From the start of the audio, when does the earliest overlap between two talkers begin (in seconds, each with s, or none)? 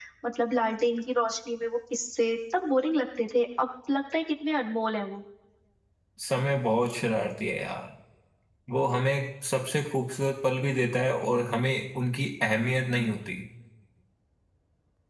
none